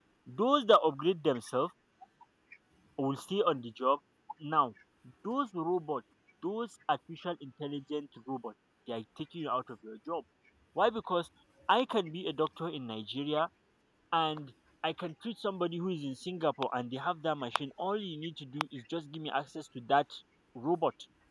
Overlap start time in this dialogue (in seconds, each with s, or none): none